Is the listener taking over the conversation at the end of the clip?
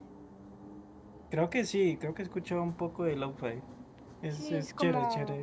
Yes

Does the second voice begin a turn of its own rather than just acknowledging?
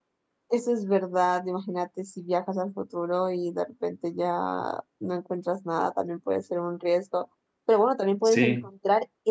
No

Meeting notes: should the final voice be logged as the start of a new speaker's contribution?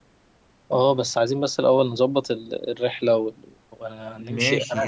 Yes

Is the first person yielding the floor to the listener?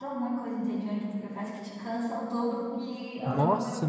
Yes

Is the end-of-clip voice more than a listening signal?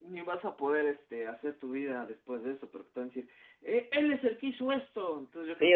Yes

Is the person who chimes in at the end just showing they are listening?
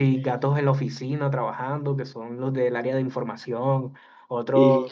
Yes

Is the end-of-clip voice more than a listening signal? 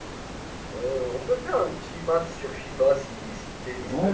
Yes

